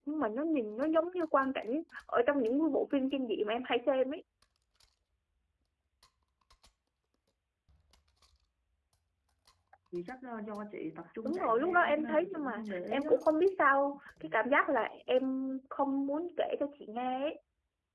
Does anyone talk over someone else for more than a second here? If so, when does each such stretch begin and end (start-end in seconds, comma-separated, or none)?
11.2-13.1